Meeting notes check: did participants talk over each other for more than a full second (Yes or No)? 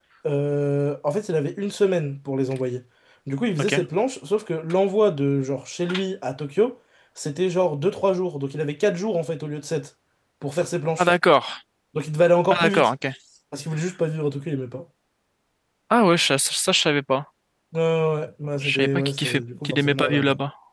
Yes